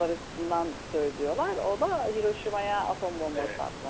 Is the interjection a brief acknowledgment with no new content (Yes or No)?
No